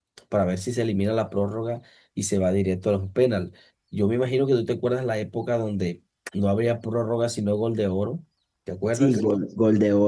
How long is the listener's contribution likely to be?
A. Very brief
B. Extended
B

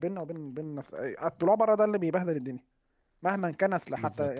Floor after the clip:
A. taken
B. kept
B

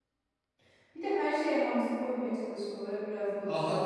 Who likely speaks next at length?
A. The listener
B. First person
A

